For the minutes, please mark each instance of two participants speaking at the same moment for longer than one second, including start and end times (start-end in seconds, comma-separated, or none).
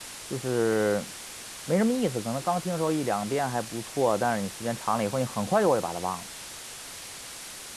none